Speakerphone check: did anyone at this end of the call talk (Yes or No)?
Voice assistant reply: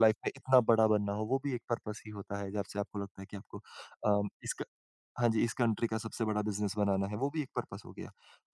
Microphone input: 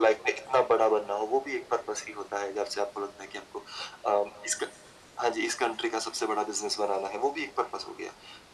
No